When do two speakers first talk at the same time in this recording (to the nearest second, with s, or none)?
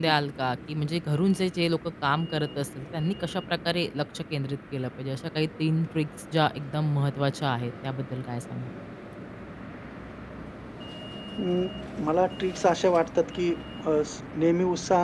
none